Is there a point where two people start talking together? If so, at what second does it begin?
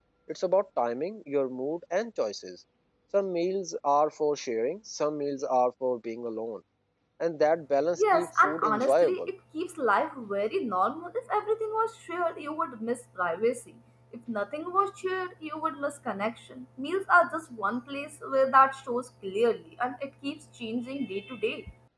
8.0 s

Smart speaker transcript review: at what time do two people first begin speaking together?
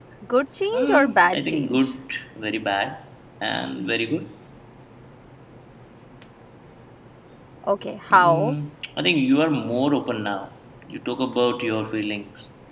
0.7 s

